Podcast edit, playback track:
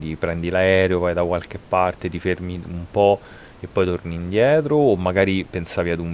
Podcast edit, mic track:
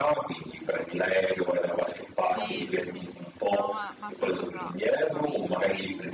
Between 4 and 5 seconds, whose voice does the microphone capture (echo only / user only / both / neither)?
both